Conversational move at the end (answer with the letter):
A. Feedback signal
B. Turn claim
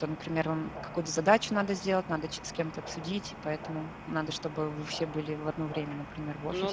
B